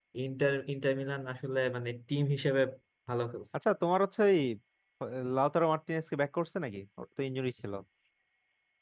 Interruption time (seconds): none

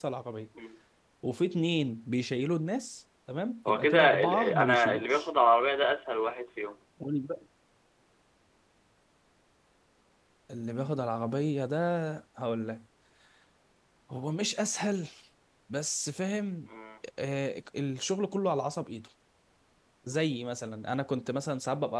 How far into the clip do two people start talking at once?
3.6 s

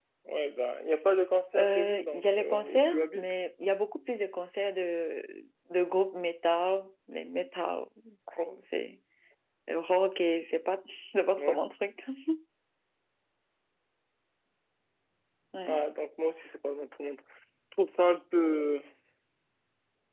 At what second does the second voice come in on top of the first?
1.5 s

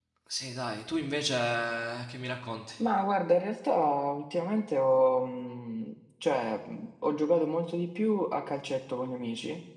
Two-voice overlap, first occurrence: none

